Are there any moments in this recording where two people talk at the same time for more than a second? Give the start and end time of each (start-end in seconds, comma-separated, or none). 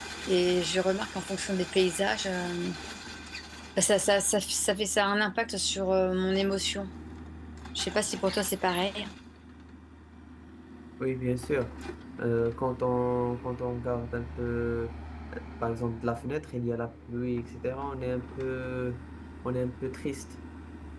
none